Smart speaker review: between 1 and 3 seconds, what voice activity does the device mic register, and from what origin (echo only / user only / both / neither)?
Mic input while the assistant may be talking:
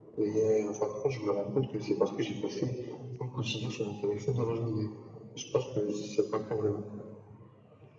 echo only